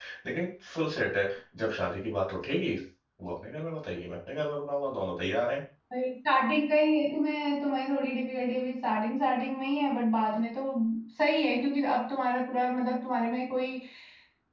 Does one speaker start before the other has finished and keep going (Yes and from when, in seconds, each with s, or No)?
No